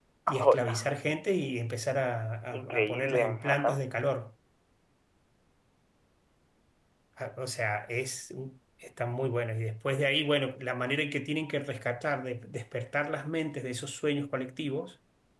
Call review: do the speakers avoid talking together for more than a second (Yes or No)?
No